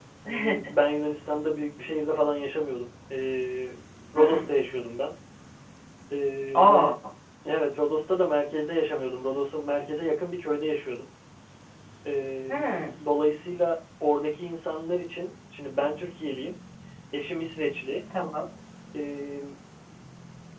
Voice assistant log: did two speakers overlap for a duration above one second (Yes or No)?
No